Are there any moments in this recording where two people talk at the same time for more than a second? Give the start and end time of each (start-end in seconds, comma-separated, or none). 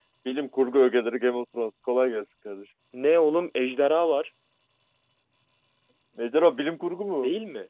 none